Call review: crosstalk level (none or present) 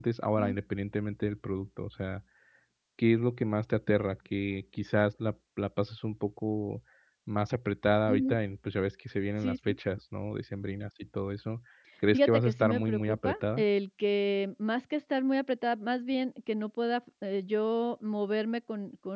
present